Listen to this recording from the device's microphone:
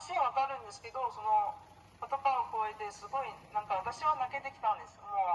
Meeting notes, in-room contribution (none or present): none